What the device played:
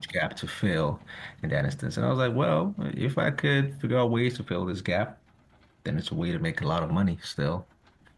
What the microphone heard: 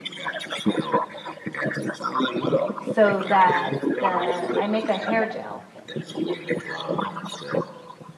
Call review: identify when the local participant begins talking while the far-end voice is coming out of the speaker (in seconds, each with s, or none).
2.8 s